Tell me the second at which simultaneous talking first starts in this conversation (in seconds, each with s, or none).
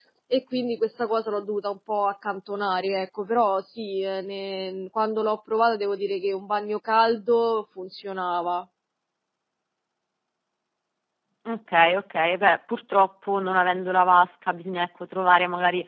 none